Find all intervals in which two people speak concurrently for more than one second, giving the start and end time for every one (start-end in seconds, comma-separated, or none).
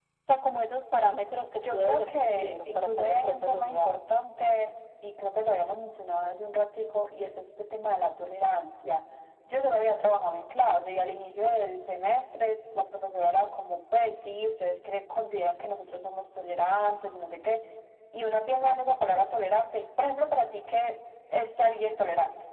1.6-4.0